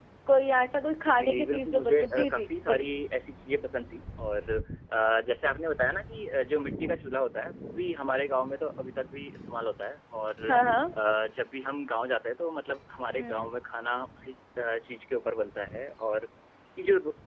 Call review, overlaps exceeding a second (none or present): present